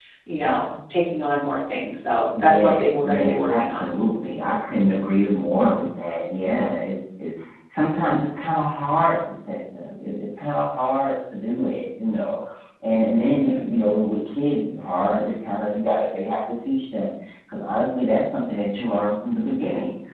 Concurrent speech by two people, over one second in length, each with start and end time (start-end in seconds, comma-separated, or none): 2.4-3.9